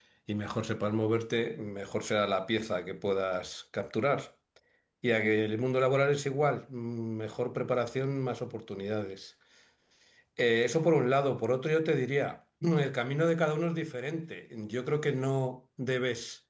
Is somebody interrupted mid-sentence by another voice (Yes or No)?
No